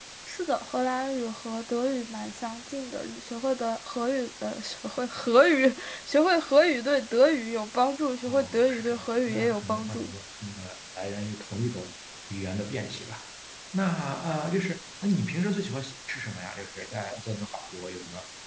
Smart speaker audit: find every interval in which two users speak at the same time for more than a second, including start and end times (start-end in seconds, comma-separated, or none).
8.3-10.1